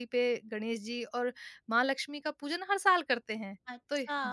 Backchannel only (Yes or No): No